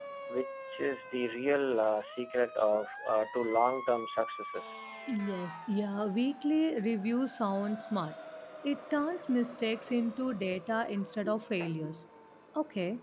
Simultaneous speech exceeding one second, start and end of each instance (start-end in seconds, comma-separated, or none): none